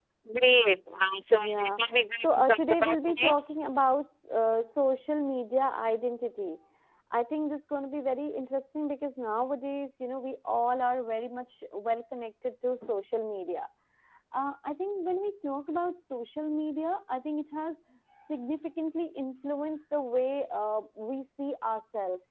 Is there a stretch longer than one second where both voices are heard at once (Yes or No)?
Yes